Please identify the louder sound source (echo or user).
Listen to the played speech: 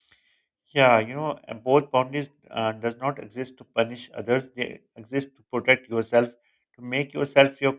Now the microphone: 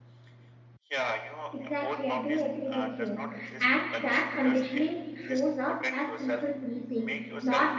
user